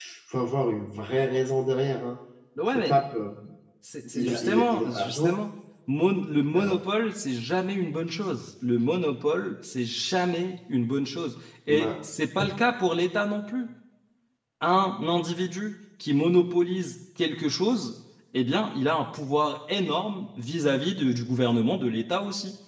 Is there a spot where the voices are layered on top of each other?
Yes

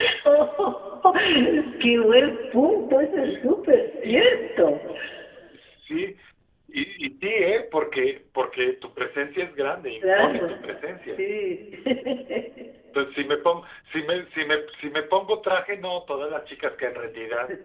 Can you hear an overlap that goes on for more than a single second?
No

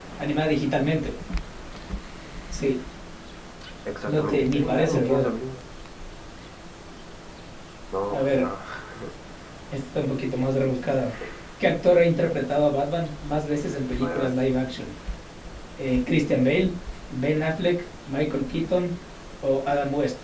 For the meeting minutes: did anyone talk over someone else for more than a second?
Yes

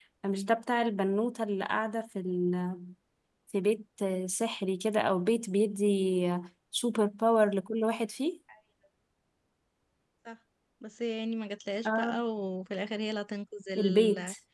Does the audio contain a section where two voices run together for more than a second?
No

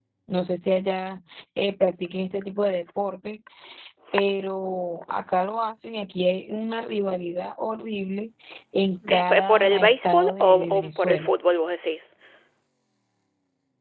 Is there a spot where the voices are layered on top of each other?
Yes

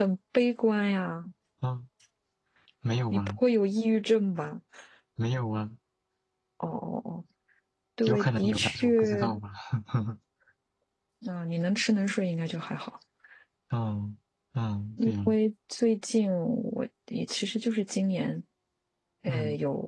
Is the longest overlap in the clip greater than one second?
Yes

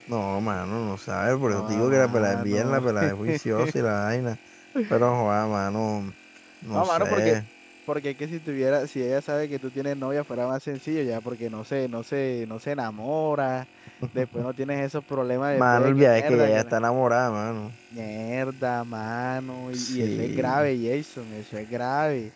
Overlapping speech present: Yes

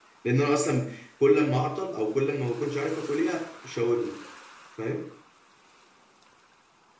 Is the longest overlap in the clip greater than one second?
No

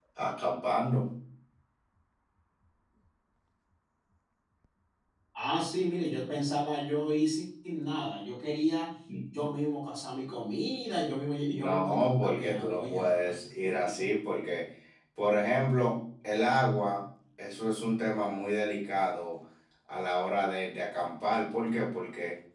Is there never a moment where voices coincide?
No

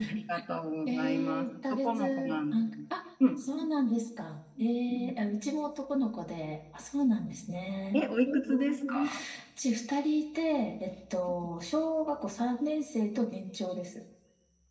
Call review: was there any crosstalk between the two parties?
Yes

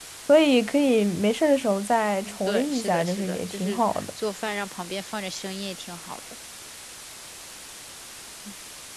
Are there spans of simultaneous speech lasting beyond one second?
Yes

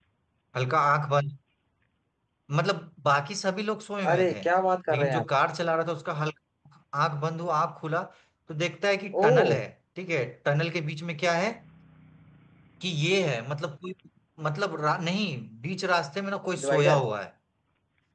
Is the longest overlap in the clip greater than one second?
No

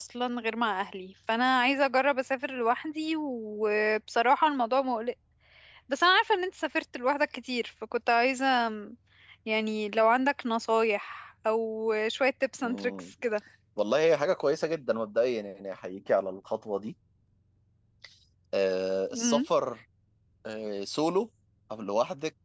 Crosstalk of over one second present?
No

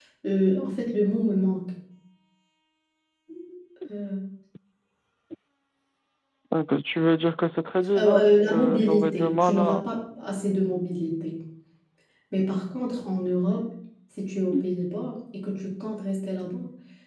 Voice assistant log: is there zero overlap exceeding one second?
No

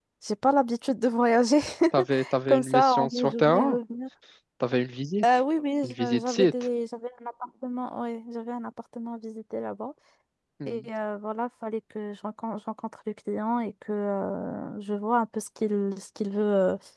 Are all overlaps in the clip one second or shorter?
No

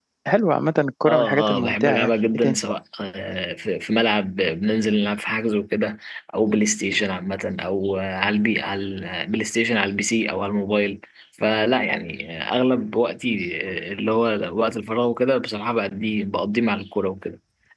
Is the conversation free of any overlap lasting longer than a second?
No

